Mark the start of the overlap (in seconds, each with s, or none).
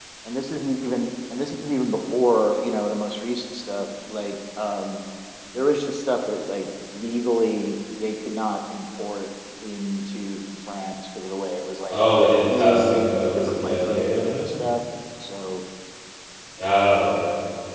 12.5 s